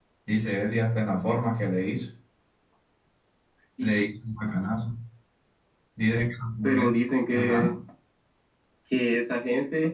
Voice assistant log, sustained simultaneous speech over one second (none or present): none